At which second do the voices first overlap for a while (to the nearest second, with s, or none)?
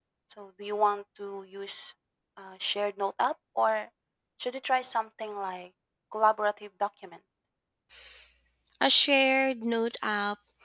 none